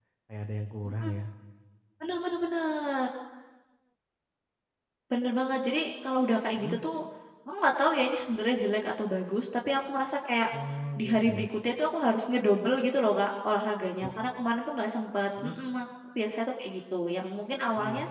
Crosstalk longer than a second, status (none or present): none